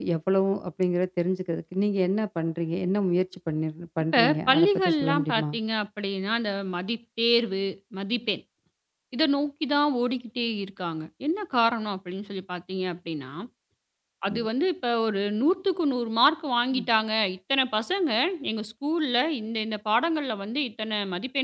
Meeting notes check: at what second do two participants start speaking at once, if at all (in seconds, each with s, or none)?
4.1 s